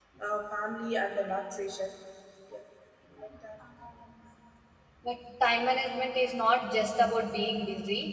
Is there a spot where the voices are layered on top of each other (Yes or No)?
No